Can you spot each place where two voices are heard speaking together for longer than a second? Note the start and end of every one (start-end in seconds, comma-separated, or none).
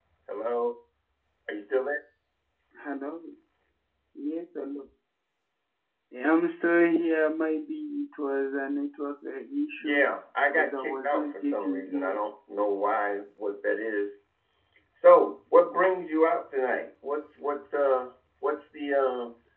10.5-12.2